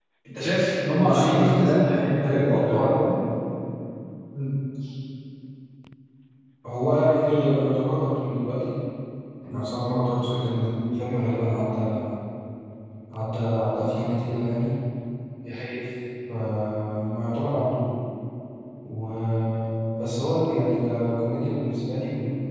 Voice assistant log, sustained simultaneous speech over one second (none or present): present